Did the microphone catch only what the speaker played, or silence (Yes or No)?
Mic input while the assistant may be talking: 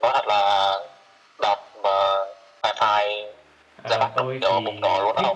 No